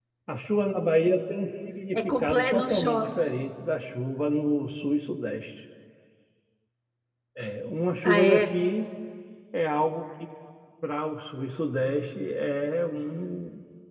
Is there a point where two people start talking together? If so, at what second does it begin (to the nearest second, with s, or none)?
2 s